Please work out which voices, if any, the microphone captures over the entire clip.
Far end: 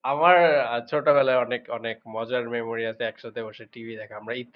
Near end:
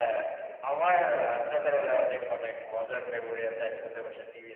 echo only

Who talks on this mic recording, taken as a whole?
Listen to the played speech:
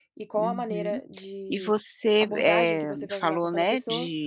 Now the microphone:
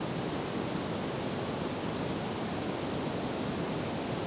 neither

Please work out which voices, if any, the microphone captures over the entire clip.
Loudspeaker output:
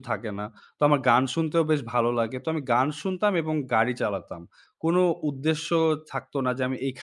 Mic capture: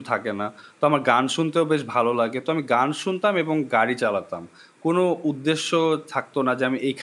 echo only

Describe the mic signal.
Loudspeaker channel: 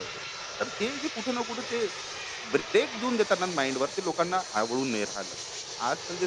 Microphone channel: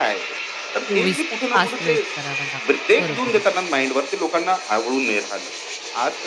both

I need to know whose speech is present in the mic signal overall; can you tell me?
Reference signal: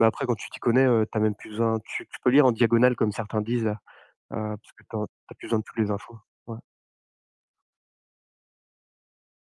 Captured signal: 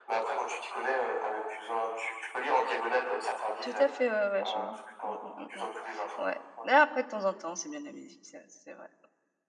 both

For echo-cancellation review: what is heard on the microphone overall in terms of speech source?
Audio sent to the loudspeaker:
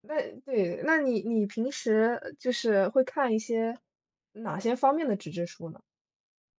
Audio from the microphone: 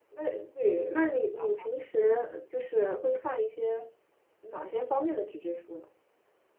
both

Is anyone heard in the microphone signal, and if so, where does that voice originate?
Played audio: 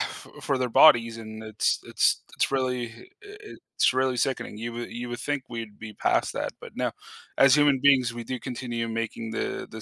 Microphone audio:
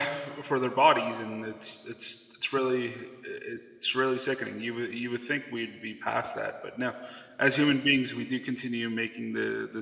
echo only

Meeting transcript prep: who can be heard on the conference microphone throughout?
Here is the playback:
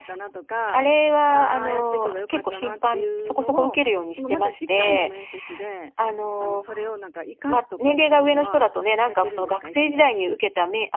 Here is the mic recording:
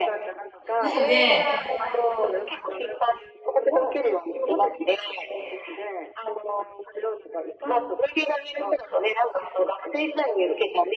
both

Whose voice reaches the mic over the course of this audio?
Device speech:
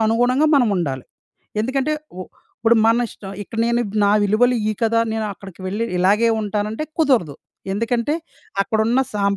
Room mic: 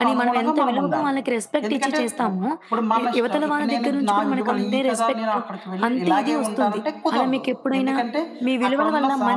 both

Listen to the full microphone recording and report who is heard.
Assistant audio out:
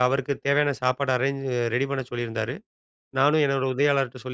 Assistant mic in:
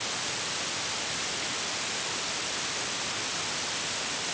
neither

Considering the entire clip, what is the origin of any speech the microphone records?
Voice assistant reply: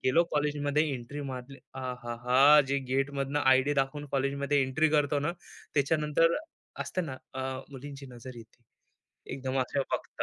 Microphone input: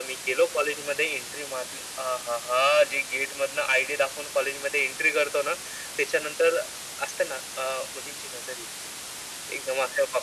echo only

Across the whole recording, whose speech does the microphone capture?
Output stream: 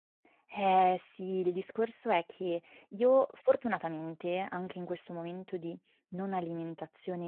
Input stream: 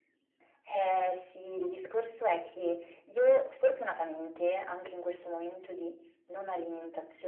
echo only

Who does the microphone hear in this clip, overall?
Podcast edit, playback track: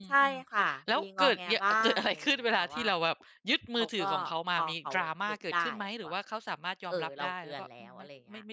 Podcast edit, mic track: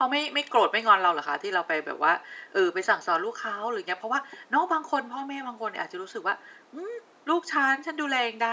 user only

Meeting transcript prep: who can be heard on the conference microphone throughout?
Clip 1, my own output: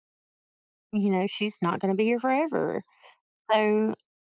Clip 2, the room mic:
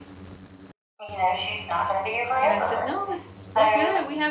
both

